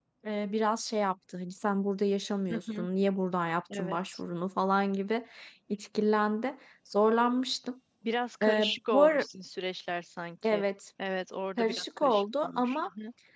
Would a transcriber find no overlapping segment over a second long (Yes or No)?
No